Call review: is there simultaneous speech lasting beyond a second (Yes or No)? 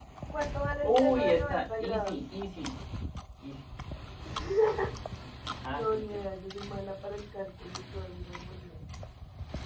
Yes